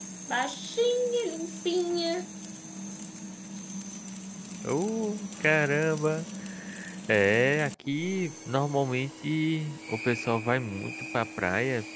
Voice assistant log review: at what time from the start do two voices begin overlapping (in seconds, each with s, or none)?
none